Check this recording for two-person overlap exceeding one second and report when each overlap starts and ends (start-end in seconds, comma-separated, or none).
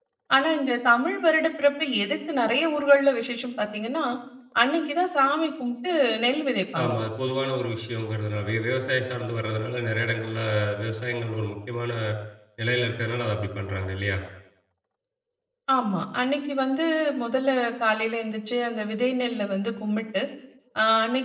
none